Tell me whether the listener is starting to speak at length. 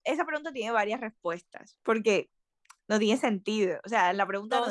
Yes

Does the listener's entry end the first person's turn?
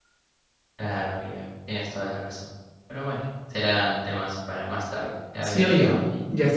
Yes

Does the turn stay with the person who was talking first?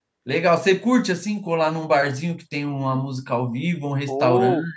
No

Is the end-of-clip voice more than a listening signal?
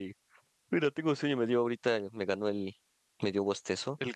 No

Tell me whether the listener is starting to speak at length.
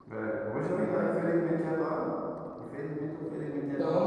Yes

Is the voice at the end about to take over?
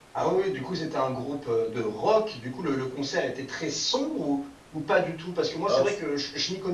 No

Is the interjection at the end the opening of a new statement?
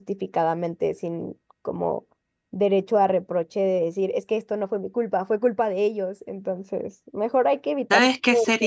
Yes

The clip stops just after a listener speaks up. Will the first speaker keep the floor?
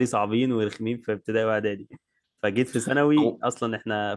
Yes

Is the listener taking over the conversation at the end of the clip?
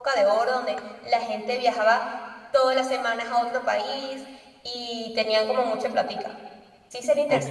Yes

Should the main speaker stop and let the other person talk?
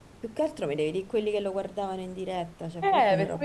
Yes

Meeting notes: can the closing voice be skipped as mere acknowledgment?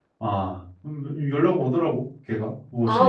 No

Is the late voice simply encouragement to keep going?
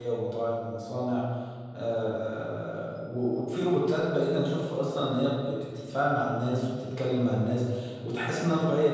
Yes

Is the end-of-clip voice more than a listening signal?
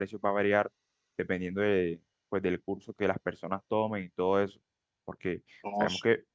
No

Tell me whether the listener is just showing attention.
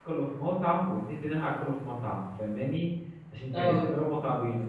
Yes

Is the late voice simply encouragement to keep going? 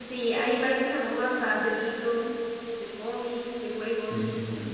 No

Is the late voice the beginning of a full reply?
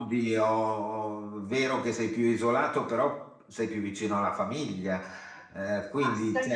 Yes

